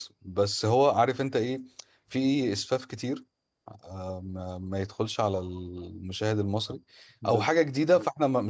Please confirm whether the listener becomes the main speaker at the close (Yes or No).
No